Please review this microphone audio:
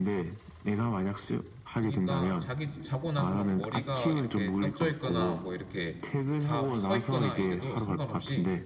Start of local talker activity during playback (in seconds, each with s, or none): 1.7 s